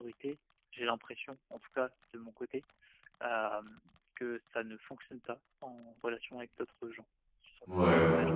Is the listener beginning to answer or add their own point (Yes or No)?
Yes